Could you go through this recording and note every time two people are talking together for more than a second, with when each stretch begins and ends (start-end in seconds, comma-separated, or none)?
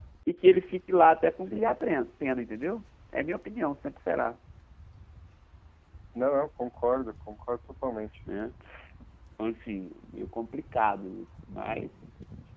none